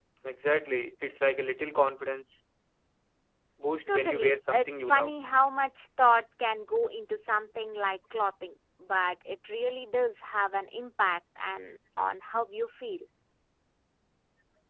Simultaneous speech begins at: 3.9 s

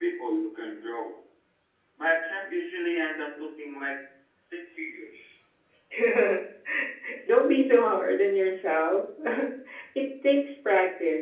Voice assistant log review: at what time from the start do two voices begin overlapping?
none

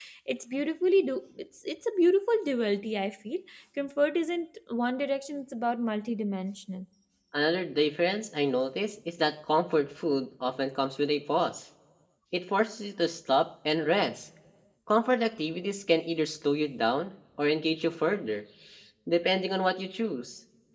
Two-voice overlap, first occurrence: none

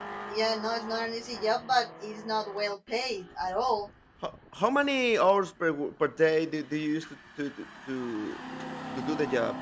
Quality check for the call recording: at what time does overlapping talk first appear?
none

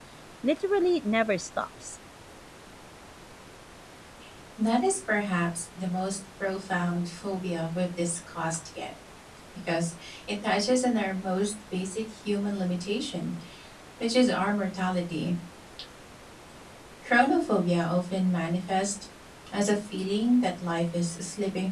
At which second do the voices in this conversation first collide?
none

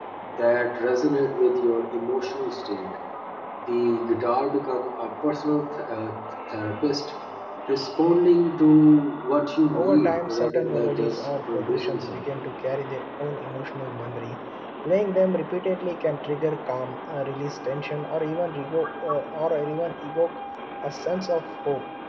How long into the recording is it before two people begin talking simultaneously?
9.7 s

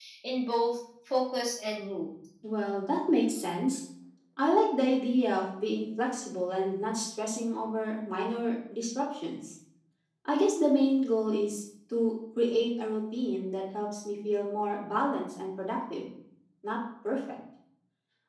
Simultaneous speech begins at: none

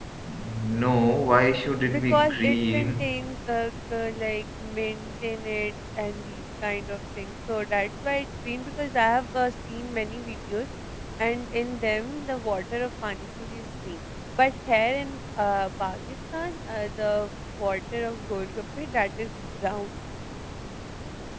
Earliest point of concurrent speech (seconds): 1.8 s

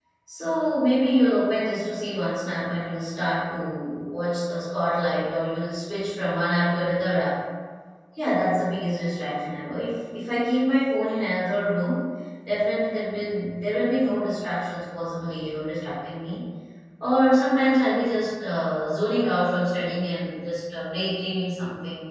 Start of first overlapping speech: none

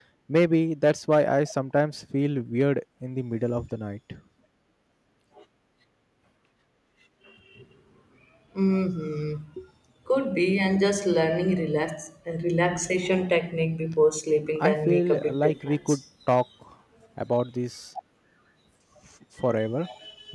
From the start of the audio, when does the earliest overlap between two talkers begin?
14.6 s

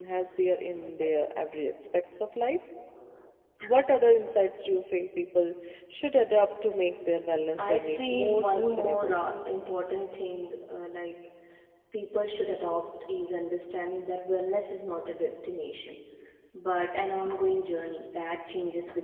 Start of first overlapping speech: 7.6 s

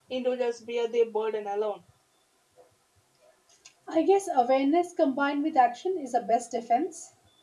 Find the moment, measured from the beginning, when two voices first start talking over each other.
none

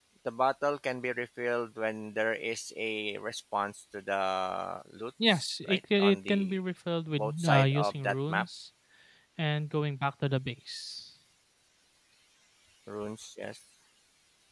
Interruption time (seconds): 5.3 s

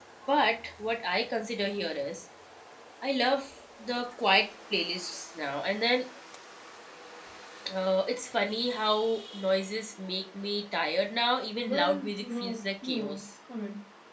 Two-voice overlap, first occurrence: 11.7 s

